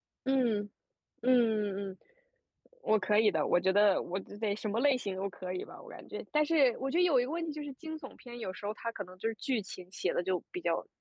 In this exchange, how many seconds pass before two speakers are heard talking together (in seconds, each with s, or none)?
none